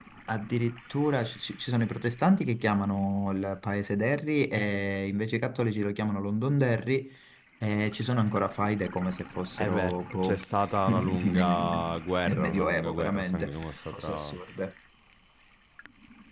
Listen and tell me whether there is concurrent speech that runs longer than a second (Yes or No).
Yes